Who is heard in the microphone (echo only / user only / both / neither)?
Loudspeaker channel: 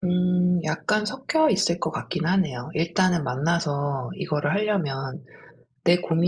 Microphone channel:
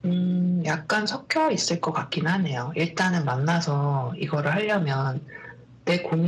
echo only